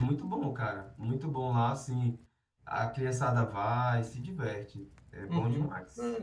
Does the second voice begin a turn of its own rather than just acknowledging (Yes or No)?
Yes